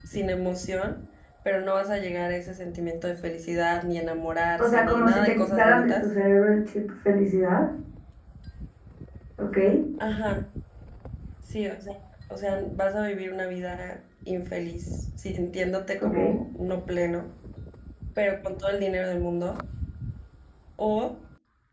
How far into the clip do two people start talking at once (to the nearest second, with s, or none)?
5 s